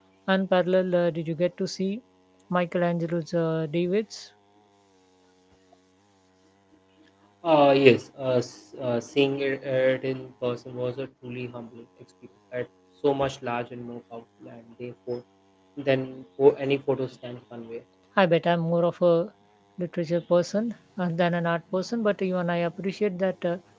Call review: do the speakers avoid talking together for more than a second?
Yes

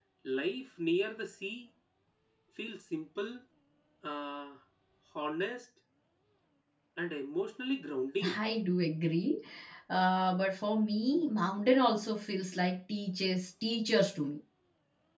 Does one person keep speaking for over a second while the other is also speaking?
No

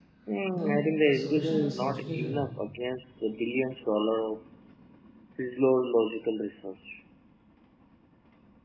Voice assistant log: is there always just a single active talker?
No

